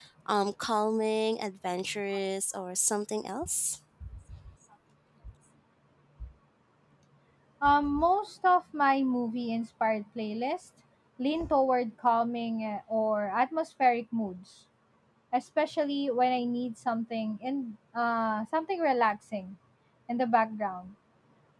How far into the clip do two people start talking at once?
none

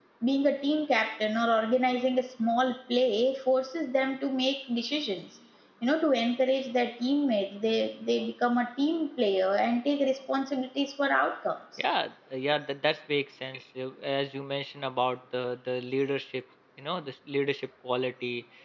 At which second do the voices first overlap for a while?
none

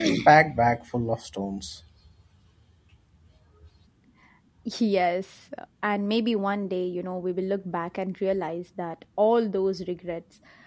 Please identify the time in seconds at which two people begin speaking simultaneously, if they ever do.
none

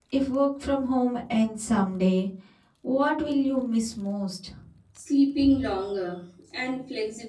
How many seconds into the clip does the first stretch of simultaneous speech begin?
none

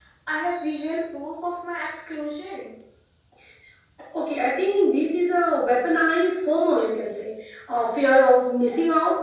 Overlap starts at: none

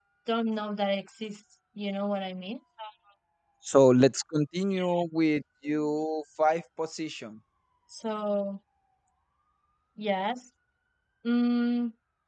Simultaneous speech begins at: none

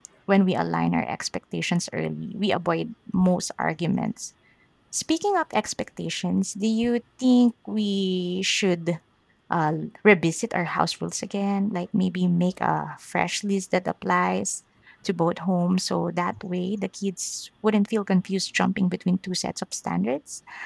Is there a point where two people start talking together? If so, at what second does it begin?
none

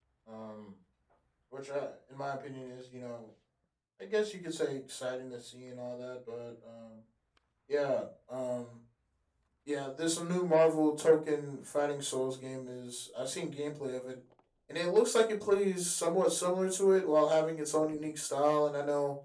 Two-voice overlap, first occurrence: none

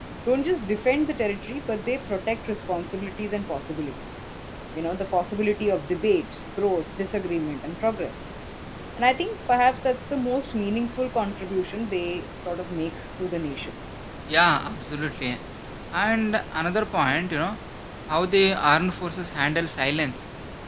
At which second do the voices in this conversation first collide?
none

